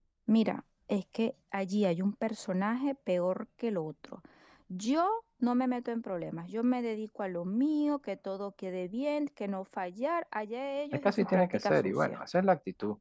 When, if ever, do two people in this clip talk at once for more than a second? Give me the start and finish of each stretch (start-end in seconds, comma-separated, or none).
10.9-12.2